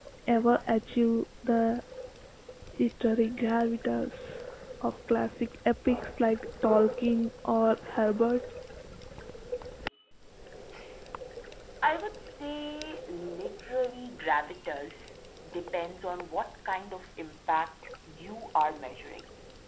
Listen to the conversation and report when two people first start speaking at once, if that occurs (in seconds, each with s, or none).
none